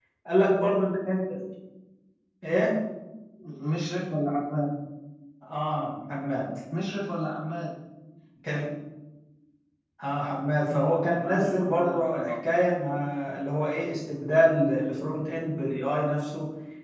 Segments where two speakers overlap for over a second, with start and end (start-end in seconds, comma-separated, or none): 10.7-12.3